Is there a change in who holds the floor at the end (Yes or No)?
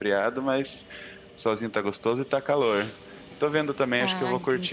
No